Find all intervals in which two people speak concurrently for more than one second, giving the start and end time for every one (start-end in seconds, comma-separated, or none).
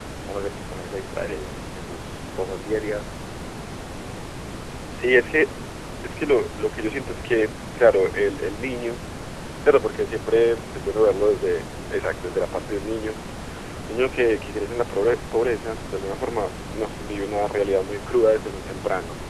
none